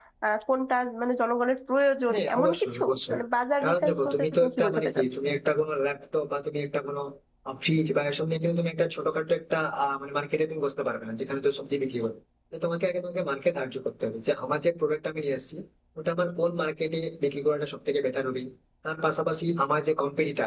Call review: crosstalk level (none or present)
present